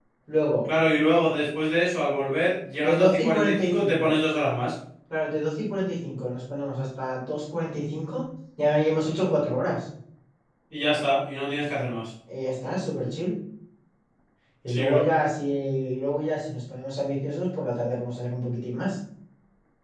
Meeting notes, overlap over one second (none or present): present